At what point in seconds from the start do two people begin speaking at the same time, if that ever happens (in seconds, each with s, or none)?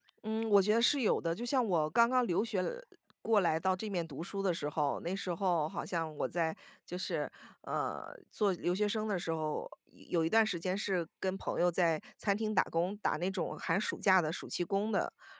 none